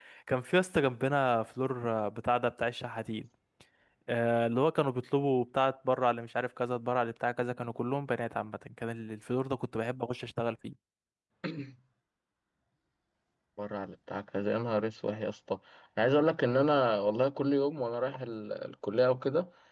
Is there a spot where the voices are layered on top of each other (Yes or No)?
No